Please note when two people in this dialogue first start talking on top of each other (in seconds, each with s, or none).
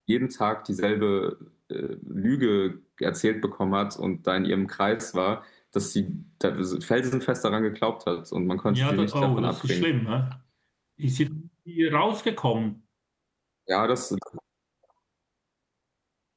8.6 s